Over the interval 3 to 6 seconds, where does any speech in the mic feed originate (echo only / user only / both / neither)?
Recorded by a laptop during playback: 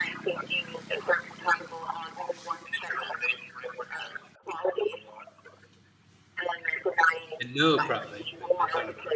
echo only